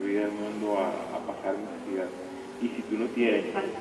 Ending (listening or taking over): listening